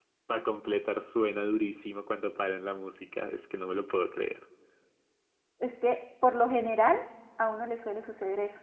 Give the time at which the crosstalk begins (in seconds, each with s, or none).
none